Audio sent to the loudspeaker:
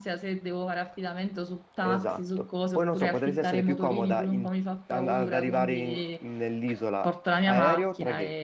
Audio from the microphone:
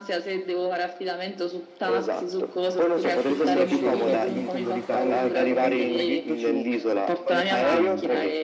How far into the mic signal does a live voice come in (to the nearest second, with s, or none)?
3 s